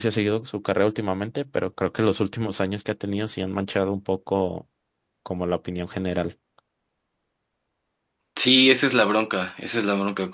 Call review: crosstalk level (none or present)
none